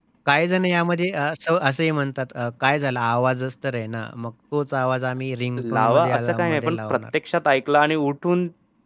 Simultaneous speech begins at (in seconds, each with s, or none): 5.6 s